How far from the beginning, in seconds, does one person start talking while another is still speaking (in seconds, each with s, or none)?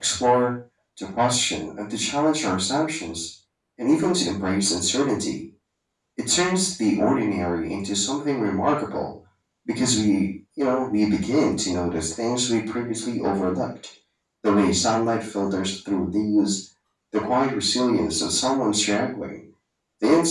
none